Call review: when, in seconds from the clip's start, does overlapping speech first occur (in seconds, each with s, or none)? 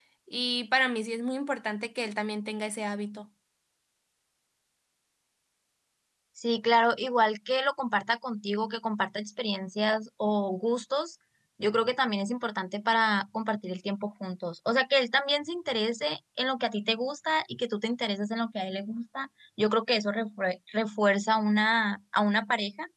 none